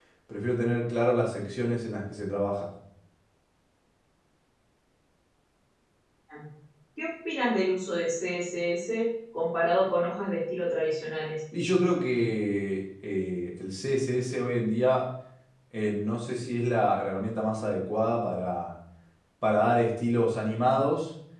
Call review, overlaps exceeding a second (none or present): none